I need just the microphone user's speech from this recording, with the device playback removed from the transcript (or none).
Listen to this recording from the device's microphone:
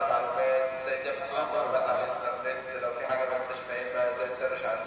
اه فاهمك معاك